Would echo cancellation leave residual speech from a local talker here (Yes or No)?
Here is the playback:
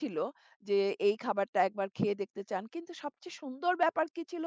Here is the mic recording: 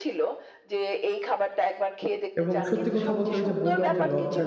Yes